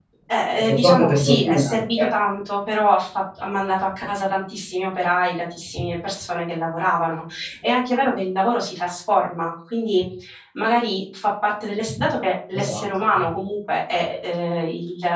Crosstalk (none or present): present